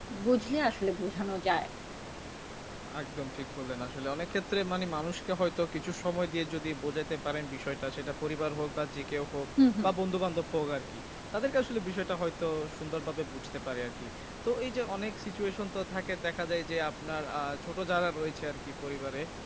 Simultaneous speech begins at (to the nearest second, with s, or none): none